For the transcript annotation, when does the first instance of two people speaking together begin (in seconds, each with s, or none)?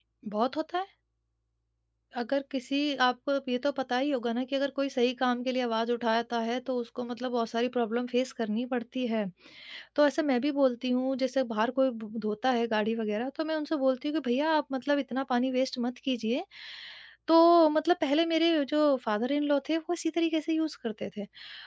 none